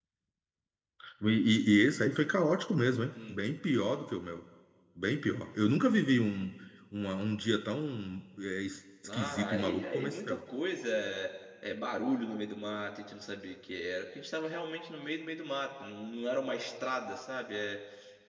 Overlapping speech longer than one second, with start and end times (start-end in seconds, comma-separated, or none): 9.1-10.4